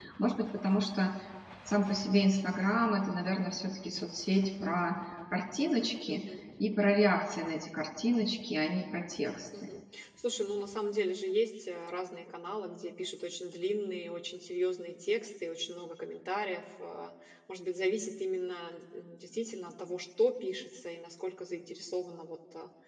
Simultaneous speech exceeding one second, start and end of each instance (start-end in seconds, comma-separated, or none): none